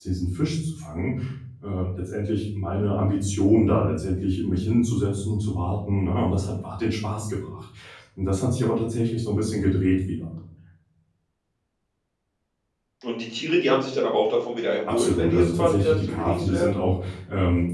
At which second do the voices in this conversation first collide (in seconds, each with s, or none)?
14.9 s